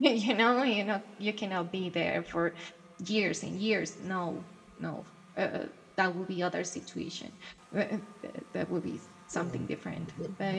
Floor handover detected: No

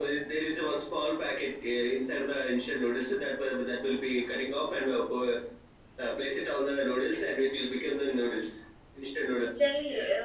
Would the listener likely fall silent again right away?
No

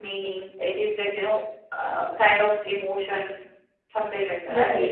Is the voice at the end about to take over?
Yes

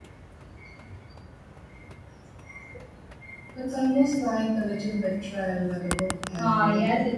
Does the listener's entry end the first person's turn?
Yes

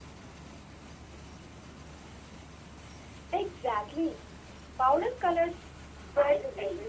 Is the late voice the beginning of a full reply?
Yes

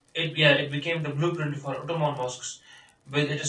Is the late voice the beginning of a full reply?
No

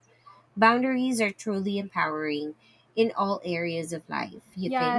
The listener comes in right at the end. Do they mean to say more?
Yes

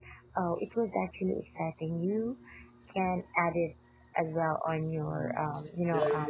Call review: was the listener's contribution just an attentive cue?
No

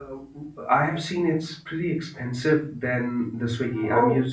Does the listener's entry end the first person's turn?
No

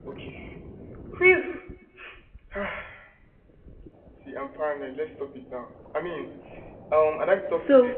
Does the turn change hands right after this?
No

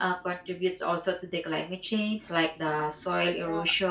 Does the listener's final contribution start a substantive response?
No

